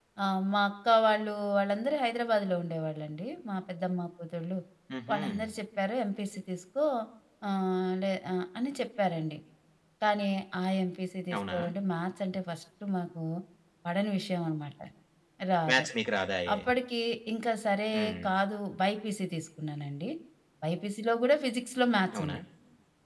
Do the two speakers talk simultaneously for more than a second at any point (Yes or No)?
No